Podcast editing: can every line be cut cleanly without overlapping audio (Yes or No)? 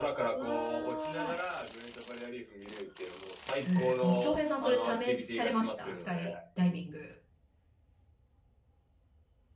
No